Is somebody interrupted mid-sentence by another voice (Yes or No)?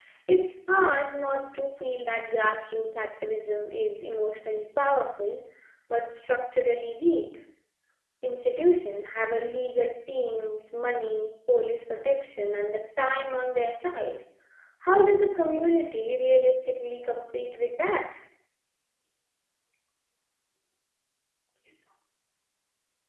No